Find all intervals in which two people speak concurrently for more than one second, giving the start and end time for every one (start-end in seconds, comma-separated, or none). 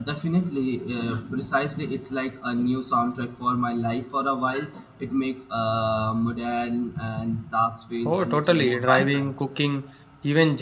8.1-9.3